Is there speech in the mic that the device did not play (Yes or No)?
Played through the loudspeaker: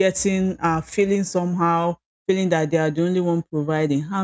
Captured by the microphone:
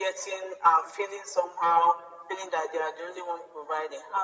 No